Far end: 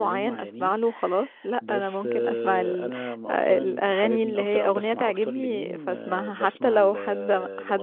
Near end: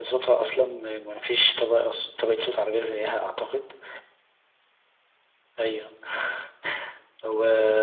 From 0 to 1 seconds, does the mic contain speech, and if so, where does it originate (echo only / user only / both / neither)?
user only